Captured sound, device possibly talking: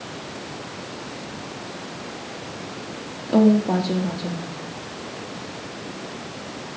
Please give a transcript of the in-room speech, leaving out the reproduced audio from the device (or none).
어 맞아요, 맞아요.